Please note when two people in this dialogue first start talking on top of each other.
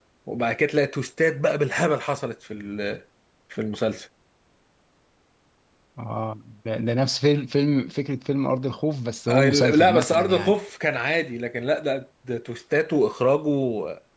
9.3 s

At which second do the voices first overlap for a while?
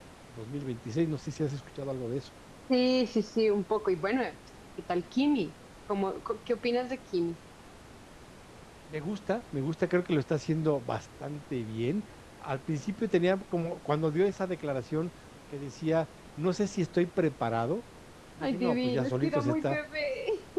18.4 s

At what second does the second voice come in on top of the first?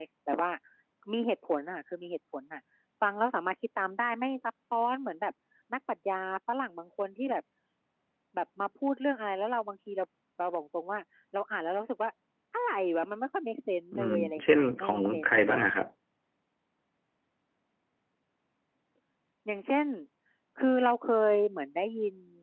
13.9 s

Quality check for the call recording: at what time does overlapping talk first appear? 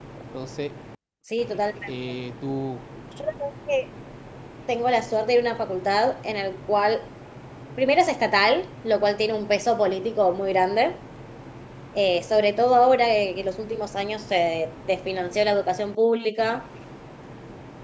none

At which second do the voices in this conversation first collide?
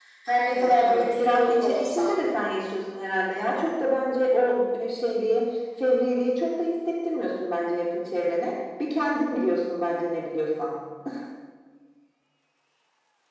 0.5 s

